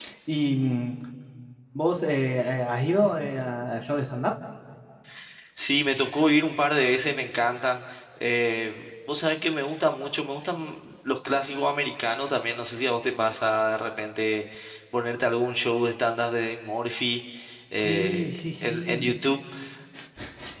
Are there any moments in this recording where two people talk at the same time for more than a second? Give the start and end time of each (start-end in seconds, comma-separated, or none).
17.8-19.1